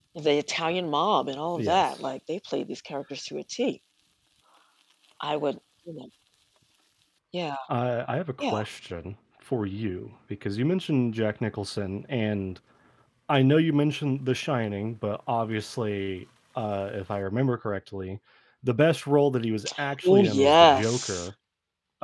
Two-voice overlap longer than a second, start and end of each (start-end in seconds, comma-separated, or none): 20.0-21.2